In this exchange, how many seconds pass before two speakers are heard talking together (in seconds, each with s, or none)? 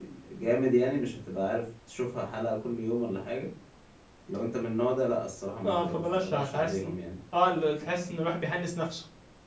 5.6 s